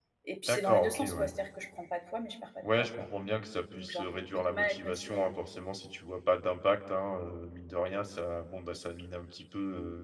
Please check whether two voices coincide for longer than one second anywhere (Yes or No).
Yes